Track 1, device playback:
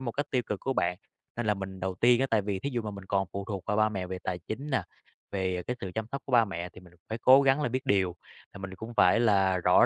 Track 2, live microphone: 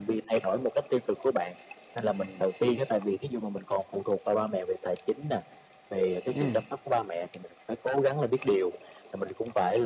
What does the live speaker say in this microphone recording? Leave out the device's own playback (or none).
Ừm.